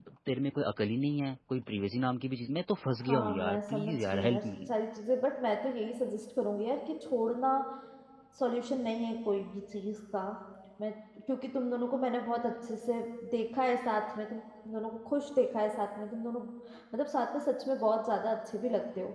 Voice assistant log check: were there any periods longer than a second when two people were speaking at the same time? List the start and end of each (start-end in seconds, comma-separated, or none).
3.0-4.4